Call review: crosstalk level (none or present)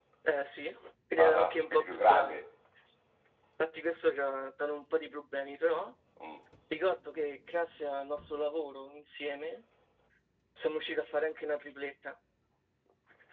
present